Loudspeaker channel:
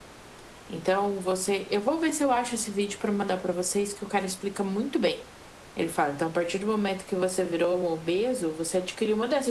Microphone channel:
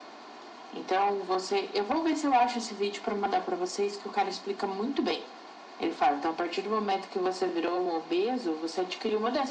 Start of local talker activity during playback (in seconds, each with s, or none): none